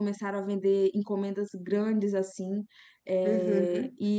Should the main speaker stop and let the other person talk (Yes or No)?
No